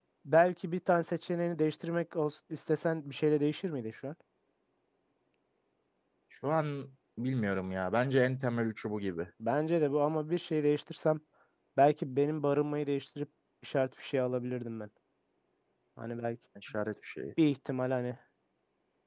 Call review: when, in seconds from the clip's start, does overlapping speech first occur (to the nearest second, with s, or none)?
none